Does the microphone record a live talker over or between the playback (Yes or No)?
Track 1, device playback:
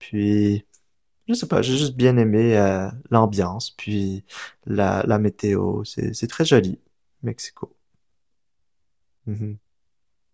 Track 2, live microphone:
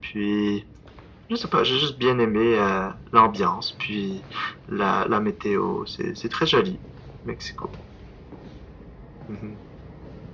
No